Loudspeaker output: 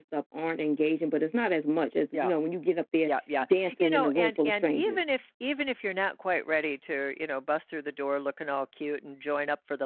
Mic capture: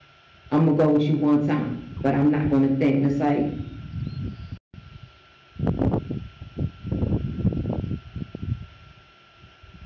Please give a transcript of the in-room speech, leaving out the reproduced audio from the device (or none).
Imma go with you 1 time, but I'm not gonna think," and it's like,